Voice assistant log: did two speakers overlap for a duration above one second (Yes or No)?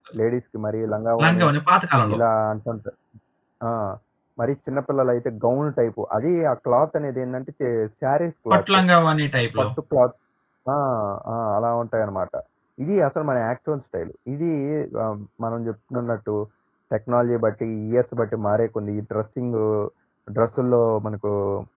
No